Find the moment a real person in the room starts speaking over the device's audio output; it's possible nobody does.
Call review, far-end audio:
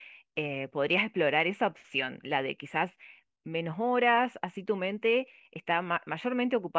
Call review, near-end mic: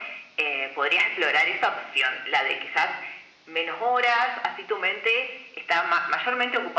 none

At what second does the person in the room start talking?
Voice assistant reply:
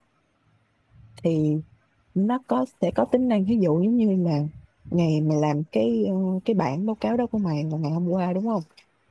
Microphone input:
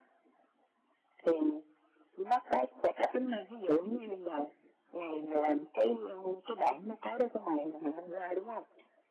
none

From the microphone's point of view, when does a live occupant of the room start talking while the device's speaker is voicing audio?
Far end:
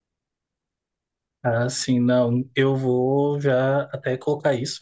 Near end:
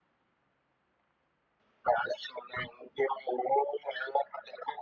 none

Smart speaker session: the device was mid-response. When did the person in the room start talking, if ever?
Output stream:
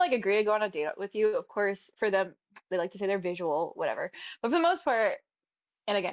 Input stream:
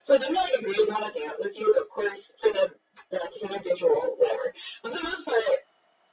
none

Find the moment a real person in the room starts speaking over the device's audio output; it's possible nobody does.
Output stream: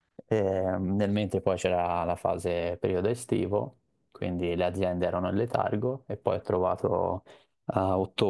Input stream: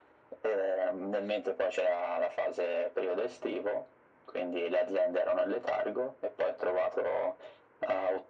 none

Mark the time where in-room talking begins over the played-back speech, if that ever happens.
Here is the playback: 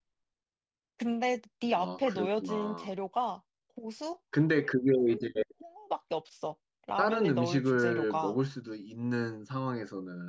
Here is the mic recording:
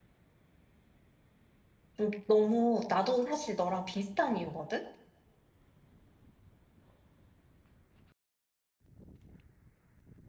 2.0 s

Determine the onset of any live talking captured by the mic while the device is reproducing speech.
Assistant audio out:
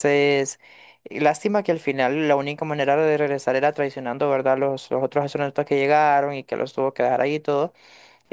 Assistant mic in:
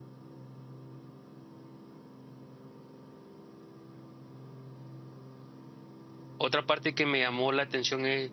6.4 s

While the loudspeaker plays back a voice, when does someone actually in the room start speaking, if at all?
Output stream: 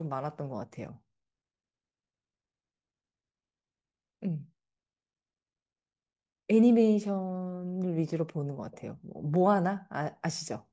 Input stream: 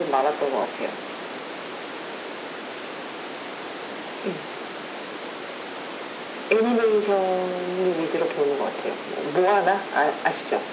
none

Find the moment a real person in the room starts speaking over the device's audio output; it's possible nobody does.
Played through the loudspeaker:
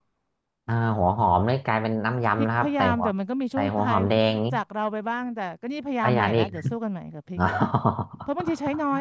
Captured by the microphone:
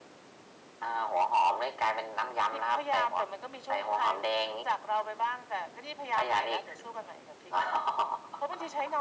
none

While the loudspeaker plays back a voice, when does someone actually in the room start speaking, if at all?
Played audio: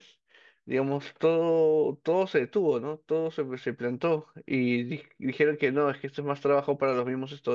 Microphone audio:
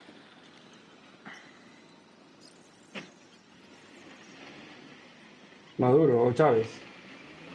5.8 s

